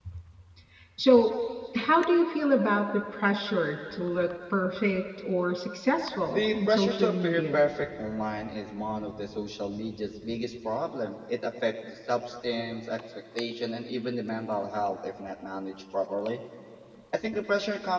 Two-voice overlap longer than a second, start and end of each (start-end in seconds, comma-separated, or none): 6.3-7.6